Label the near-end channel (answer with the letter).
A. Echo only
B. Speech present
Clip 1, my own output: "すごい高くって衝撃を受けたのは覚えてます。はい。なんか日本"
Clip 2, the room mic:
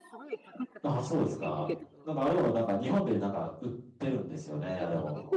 B